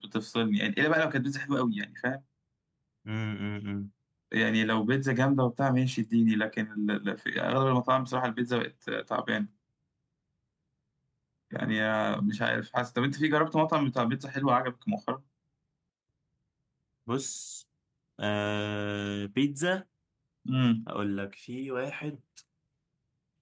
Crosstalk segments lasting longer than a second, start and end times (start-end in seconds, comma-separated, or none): none